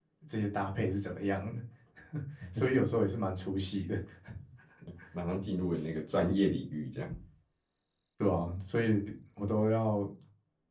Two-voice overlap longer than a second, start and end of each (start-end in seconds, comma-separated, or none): none